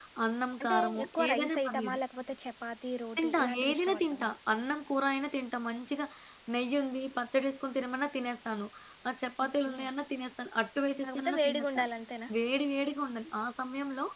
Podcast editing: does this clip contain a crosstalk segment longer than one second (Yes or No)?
Yes